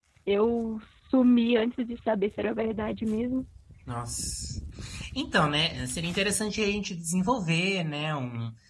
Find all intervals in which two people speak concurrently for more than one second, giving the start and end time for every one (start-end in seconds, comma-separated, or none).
none